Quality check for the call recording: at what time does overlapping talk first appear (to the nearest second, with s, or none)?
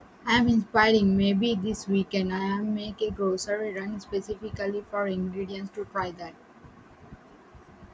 none